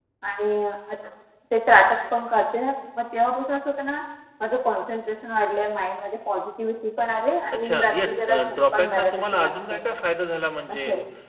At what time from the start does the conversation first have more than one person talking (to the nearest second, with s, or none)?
8 s